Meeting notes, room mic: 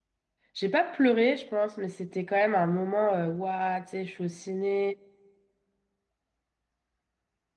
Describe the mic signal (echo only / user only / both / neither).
user only